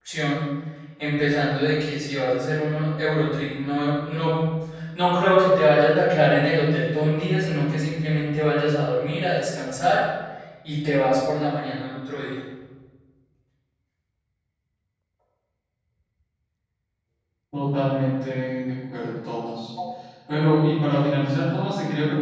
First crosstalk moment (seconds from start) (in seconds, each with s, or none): none